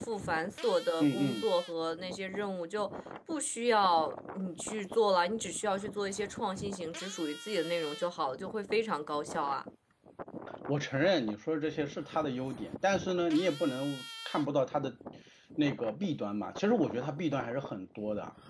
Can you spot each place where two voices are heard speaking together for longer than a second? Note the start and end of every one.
none

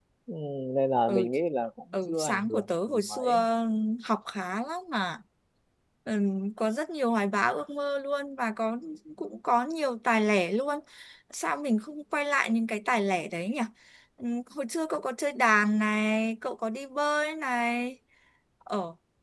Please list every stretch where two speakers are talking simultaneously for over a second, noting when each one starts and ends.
2.1-3.3

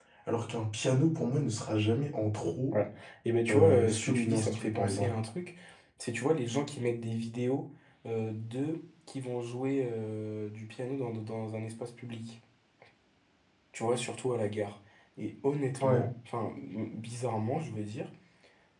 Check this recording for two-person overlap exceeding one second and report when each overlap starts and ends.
3.5-5.1

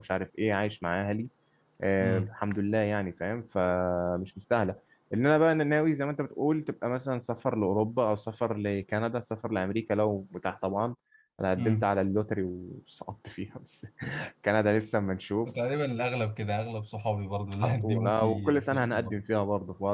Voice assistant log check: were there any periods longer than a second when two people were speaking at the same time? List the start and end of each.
17.6-19.2

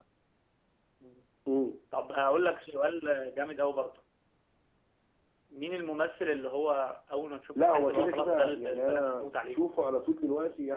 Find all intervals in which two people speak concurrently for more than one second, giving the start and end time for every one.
7.6-9.6

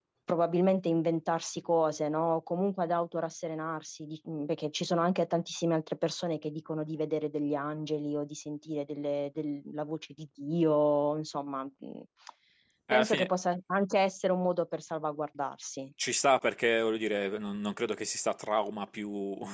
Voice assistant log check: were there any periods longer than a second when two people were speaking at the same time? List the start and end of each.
none

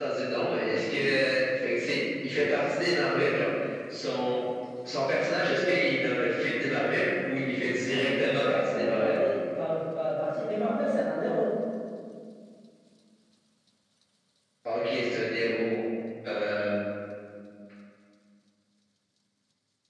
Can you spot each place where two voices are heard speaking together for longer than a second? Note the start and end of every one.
7.9-9.2

